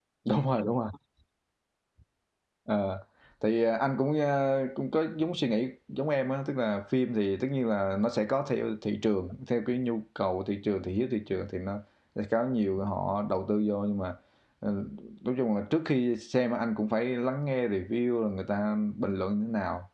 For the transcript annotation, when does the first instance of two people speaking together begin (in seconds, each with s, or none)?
none